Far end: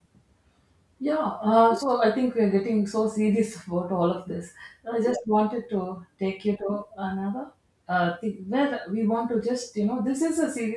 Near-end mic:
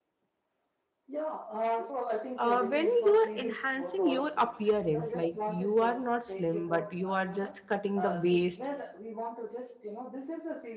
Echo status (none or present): present